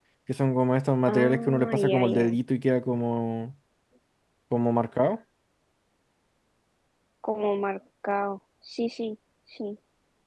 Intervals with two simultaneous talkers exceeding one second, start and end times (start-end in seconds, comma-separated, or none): 1.1-2.4